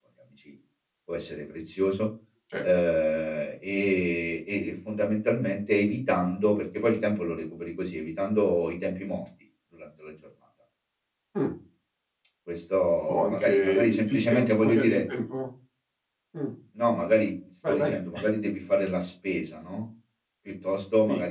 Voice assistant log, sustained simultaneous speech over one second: present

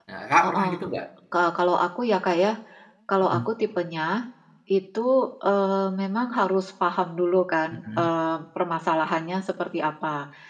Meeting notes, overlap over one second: none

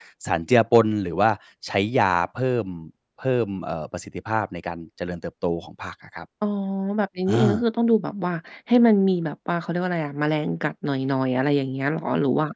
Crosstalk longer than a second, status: none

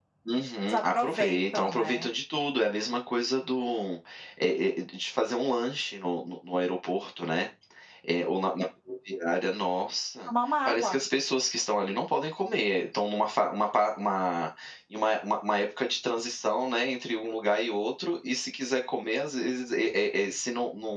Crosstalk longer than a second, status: present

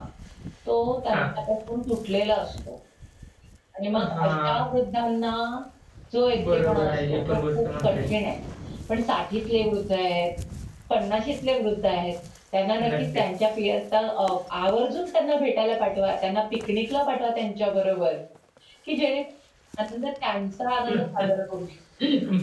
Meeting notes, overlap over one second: present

